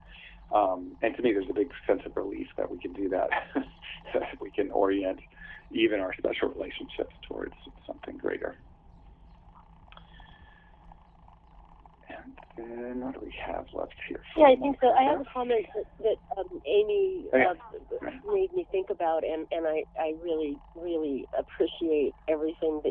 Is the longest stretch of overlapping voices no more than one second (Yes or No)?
No